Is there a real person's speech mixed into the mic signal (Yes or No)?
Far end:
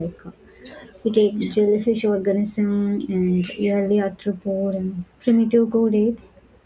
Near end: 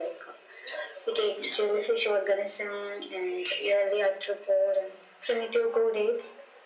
No